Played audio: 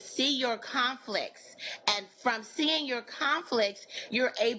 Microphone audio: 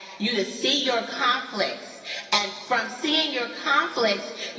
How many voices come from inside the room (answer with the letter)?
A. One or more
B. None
B